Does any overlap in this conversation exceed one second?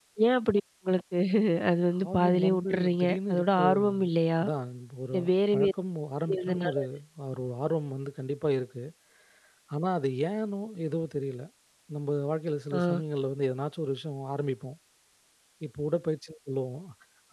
Yes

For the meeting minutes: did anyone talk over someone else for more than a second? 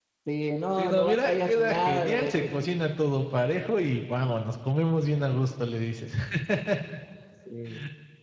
Yes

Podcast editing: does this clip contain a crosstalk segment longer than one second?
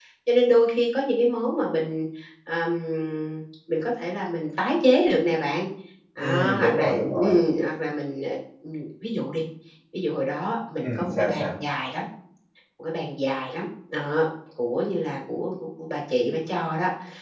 Yes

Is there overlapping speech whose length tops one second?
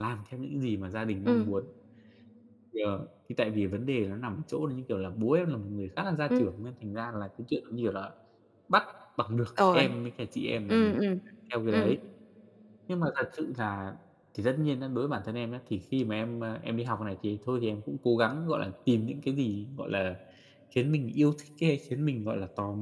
No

